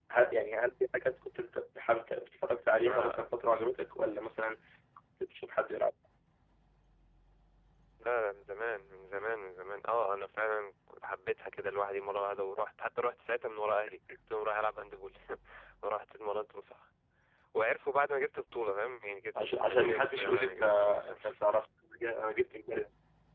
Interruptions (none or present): present